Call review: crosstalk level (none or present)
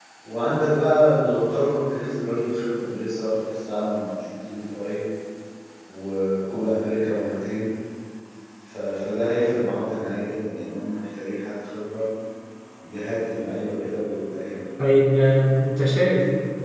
none